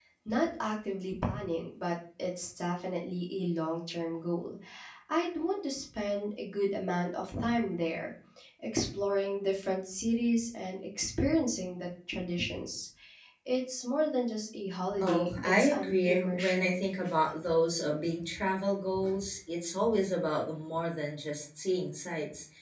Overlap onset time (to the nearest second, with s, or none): 15 s